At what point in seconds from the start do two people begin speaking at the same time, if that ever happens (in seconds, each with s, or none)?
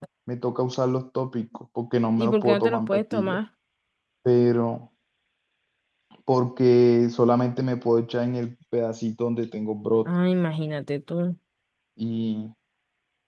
2.2 s